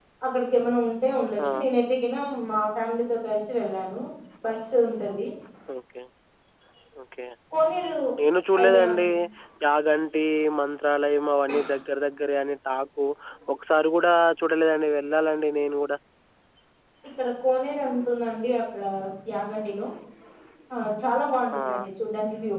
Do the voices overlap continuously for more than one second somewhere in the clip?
No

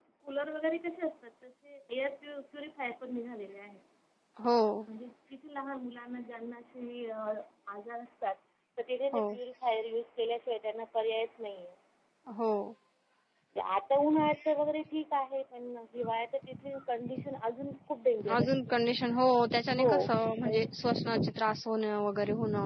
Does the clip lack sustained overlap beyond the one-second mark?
Yes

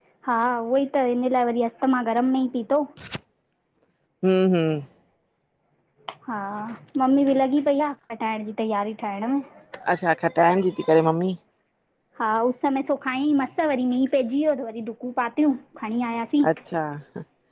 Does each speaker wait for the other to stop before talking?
Yes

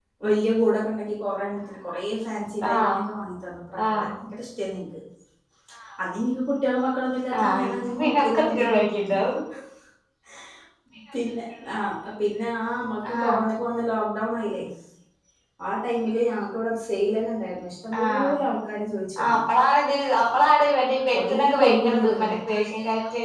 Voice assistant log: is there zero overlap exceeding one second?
No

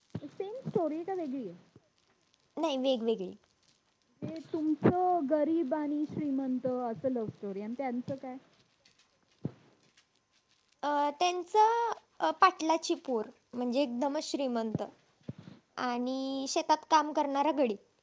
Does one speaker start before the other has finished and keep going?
No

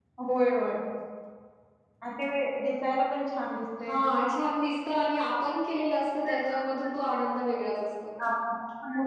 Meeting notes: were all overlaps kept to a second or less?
Yes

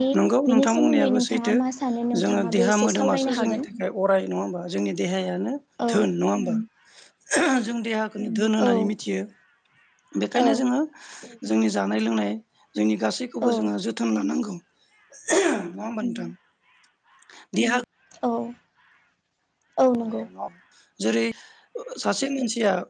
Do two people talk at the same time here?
Yes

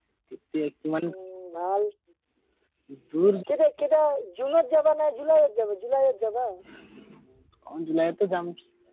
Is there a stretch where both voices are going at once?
No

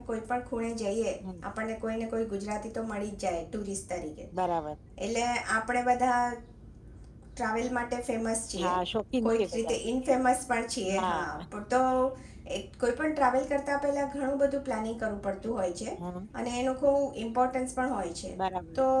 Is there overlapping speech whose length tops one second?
No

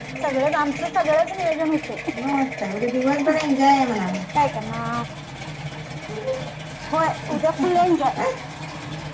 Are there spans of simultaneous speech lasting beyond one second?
No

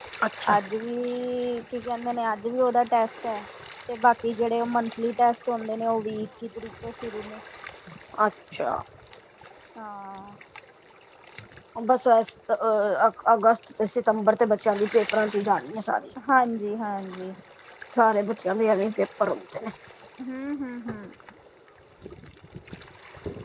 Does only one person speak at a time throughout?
Yes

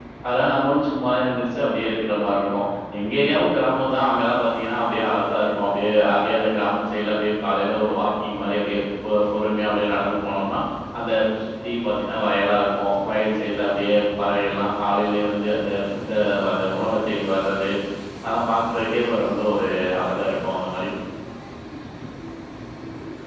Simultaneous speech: No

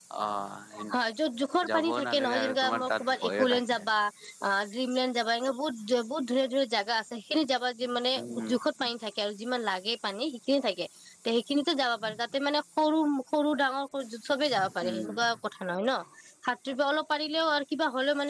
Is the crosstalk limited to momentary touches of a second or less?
No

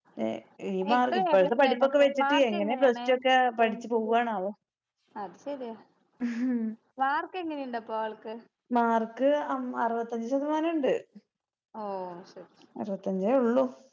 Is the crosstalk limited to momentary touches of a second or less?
No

